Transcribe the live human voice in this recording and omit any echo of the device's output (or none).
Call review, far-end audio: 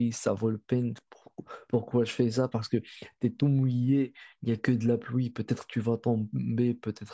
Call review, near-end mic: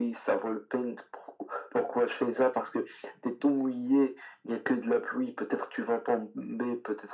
none